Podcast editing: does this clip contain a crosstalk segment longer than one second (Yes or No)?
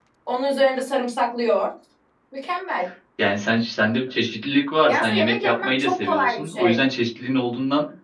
Yes